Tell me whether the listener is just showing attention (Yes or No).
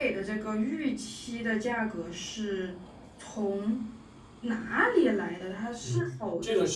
No